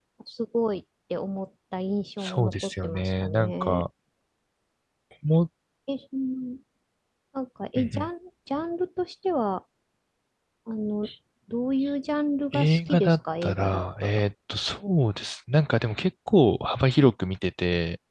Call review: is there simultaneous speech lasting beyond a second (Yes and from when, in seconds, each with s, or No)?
Yes, from 2.2 s